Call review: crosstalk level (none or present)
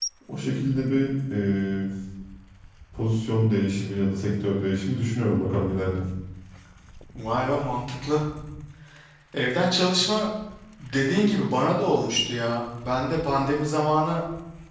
none